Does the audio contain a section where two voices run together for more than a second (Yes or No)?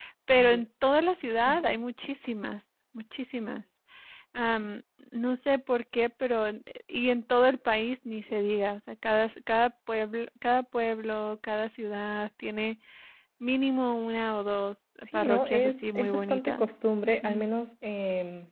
Yes